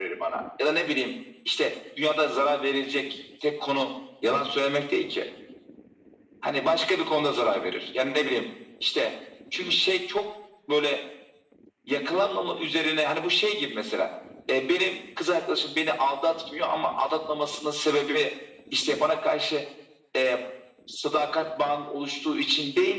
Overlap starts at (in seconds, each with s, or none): none